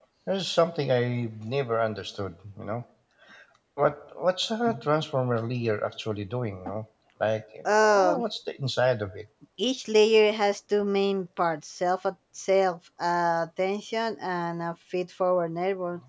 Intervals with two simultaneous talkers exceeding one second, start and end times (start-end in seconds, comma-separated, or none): none